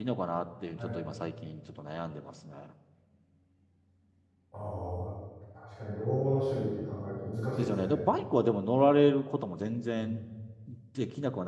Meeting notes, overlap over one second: none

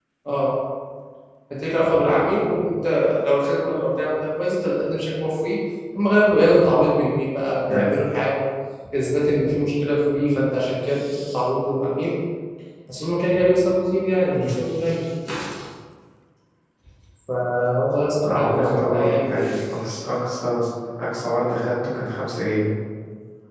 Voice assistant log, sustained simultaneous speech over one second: present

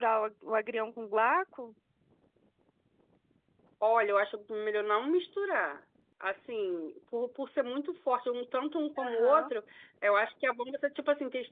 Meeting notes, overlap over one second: none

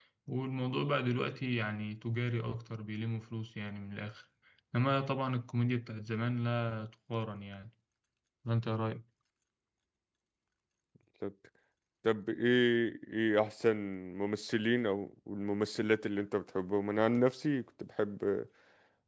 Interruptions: none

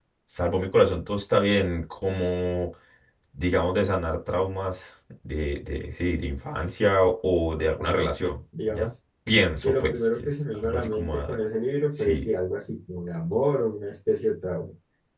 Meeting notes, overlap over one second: present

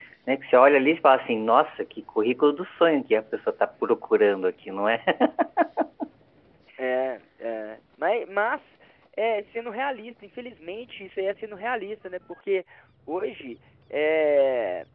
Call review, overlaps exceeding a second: none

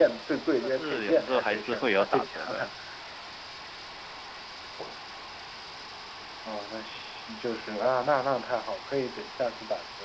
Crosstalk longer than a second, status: present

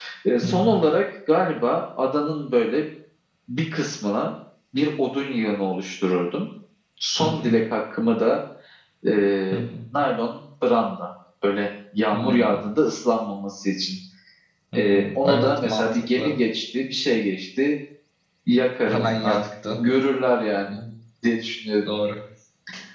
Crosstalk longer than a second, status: present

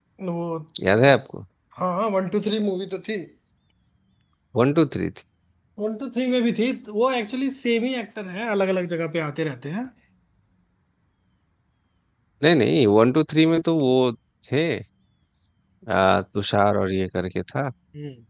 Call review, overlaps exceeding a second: none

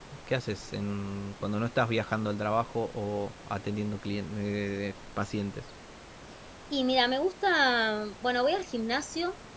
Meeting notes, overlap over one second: none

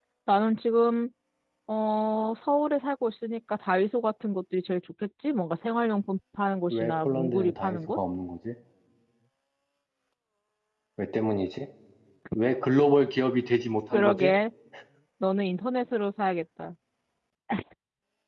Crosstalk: present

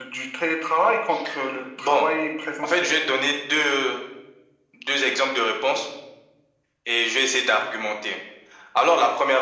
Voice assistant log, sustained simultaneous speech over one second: none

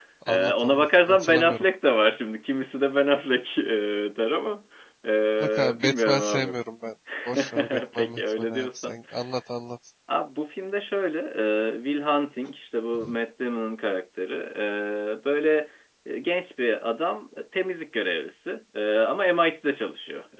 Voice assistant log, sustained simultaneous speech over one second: present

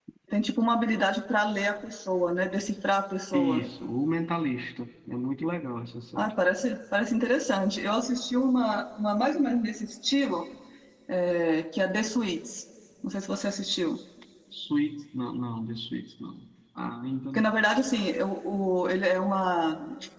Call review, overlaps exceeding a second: none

